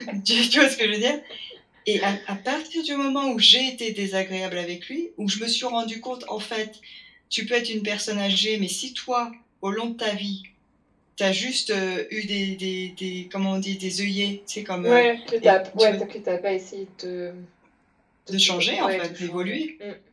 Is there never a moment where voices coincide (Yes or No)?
No